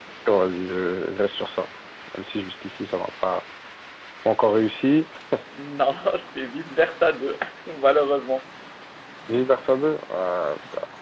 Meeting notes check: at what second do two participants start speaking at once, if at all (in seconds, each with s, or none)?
none